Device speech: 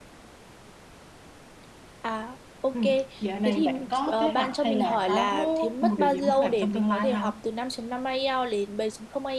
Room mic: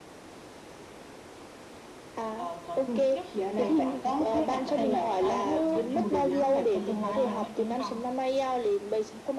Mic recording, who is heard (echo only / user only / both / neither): both